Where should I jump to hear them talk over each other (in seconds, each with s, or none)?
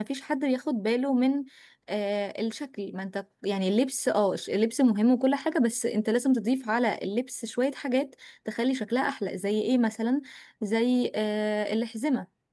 none